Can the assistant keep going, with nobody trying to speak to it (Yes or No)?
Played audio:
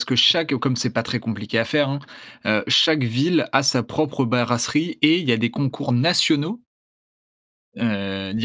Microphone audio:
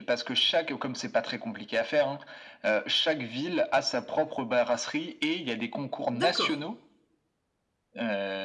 No